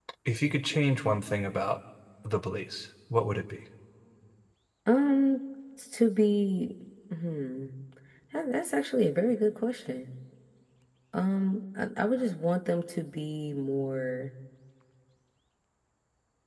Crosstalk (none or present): none